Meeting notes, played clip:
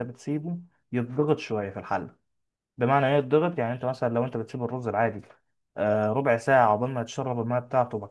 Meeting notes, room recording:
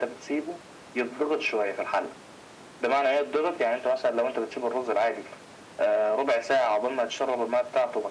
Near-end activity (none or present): none